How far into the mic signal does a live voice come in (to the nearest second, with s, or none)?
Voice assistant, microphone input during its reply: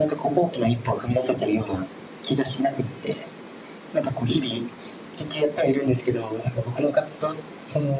none